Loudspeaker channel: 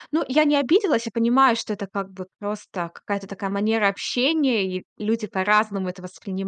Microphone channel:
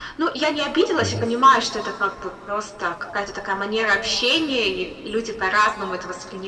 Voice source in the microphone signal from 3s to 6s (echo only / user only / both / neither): echo only